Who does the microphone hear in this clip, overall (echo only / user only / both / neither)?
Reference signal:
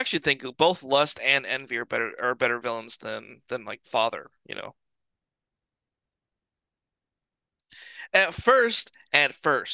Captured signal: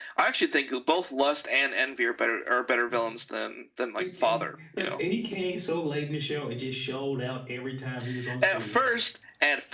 both